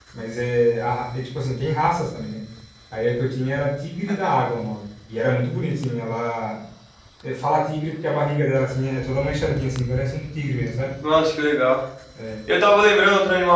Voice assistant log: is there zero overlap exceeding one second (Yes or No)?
Yes